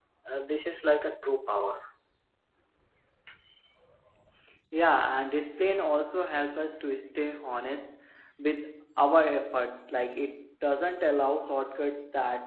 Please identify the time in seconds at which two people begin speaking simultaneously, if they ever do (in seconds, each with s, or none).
none